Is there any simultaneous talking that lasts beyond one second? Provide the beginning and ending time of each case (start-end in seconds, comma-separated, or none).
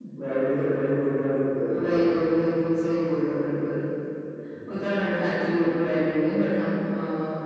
none